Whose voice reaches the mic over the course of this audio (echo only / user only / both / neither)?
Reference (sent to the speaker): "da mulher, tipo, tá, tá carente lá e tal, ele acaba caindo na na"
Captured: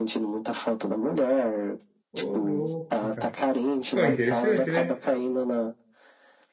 both